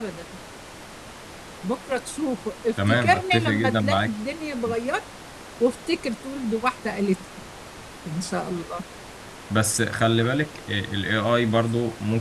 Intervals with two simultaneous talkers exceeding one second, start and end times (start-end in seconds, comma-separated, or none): 2.9-4.1